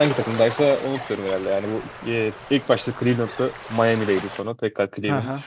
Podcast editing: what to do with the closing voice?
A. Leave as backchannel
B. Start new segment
B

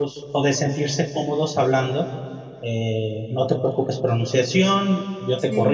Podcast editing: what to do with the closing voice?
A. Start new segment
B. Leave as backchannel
B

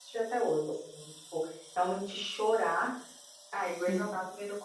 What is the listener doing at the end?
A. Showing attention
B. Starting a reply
A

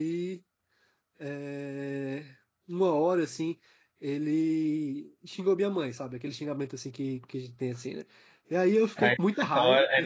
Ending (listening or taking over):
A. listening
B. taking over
B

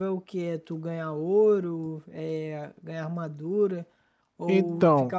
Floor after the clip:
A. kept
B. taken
A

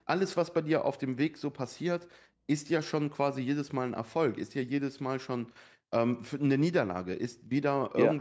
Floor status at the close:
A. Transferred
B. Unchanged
B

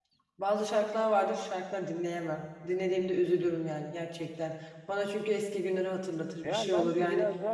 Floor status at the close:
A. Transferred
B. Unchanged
A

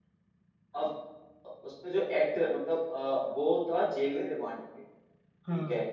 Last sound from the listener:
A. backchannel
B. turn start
A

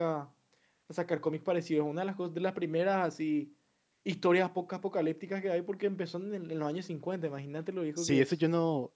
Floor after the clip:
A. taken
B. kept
A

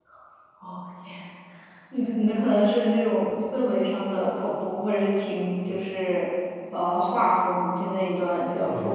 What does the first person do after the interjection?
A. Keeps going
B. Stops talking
B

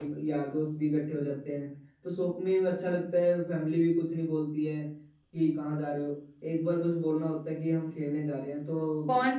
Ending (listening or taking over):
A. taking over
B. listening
A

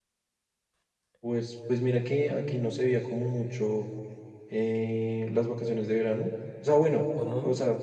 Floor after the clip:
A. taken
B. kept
B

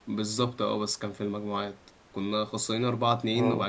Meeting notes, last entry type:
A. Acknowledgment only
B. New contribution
A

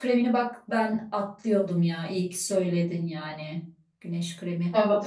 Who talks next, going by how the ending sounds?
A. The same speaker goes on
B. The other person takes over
B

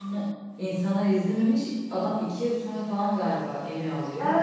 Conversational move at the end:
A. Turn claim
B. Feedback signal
A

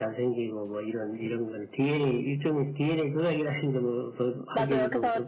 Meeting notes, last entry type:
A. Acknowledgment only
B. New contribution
B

